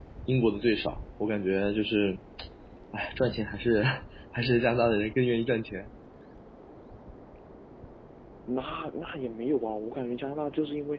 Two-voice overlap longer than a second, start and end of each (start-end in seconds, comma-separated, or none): none